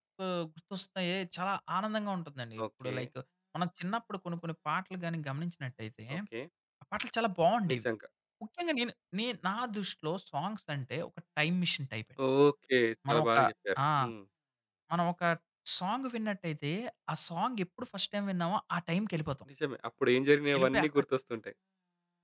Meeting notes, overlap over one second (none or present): none